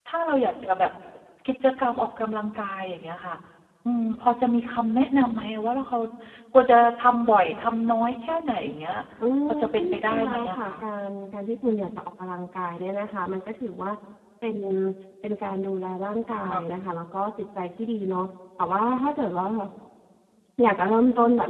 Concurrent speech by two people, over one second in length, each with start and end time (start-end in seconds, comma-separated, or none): 9.5-10.7